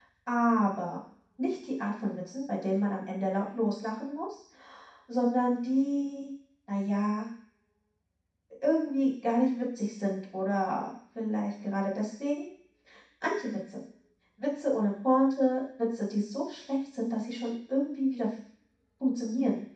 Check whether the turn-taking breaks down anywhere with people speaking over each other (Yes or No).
No